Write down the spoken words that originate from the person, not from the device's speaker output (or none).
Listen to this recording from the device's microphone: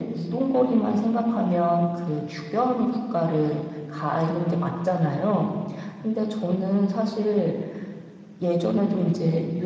none